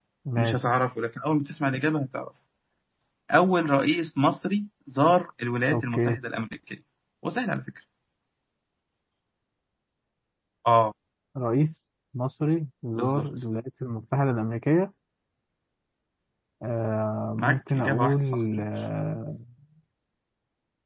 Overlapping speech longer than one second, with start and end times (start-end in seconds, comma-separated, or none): 17.4-18.6